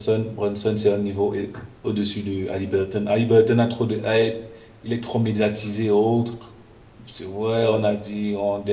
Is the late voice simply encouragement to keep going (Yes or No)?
Yes